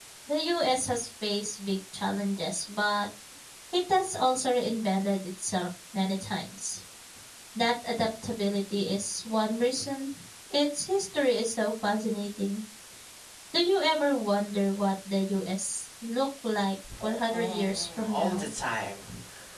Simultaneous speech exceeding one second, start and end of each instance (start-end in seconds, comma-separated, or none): 17.0-18.5